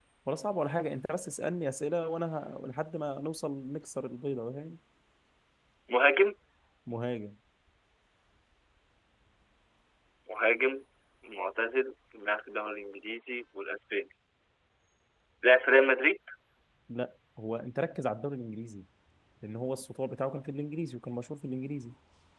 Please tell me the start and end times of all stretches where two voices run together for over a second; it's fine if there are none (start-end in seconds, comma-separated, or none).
none